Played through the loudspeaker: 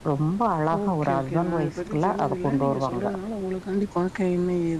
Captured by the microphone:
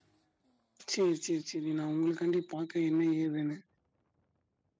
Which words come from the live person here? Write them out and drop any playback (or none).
செரி செரி செரி நான் உங்களுக்காண்டி பாக்க என்ன ஏதுன்னு